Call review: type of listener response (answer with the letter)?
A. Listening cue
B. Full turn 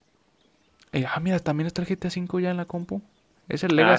A